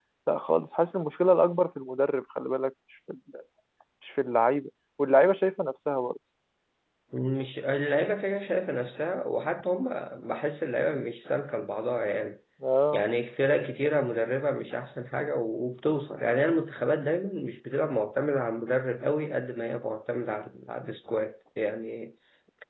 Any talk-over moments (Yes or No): No